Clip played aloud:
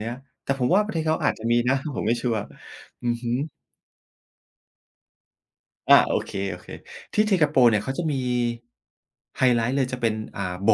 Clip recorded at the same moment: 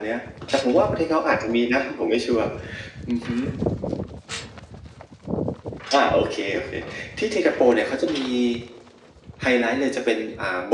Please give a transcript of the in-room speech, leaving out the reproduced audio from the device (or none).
none